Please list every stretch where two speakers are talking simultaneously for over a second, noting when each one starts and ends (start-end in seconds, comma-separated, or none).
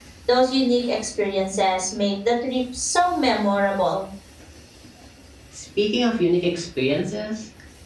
none